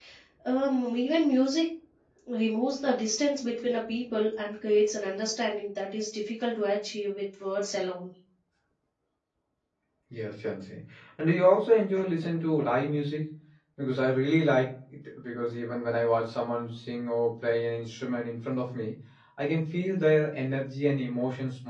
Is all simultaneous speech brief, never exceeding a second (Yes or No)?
Yes